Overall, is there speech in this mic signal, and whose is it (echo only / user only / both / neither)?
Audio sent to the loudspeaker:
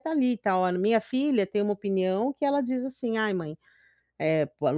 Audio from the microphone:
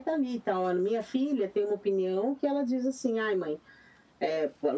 echo only